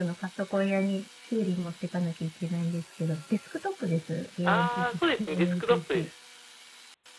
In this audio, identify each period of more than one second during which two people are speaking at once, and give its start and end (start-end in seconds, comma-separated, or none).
4.5-6.1